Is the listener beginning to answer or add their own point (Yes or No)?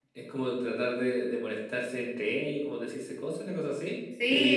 Yes